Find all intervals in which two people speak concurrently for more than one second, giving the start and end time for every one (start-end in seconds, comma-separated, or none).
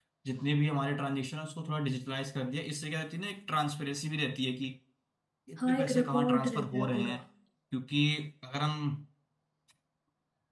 5.6-7.1